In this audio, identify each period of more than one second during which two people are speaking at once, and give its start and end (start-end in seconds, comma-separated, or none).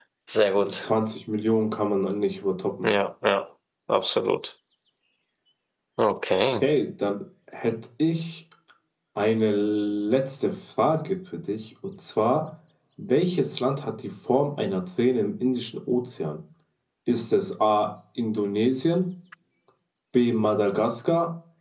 none